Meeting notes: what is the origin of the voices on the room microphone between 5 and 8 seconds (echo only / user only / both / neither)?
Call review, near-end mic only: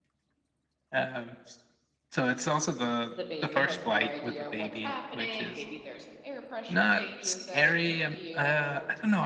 both